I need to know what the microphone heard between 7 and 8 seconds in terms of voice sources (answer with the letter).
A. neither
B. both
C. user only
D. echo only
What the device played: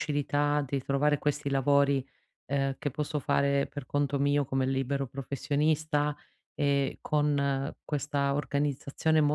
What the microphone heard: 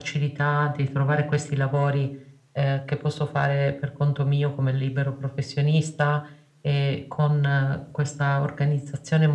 D